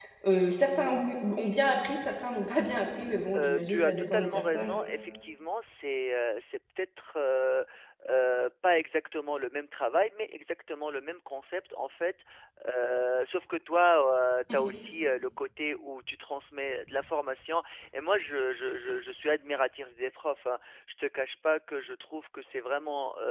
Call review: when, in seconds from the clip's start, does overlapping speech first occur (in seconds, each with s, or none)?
3.4 s